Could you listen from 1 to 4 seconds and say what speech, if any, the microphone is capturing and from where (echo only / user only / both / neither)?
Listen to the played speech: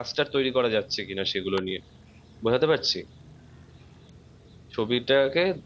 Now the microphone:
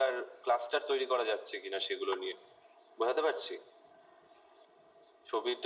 echo only